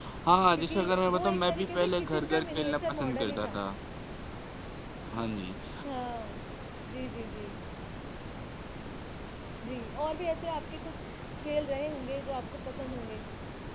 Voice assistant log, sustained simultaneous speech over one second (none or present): present